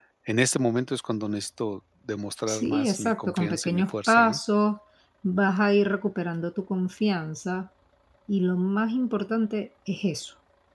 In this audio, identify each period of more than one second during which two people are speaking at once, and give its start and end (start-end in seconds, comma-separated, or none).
2.5-4.4